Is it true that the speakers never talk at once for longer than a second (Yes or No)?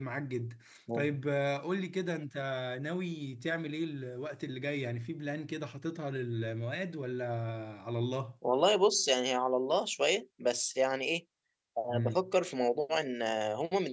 Yes